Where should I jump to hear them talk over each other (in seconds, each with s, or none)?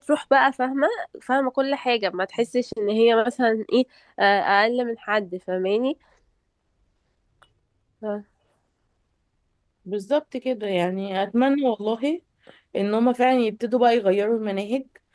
none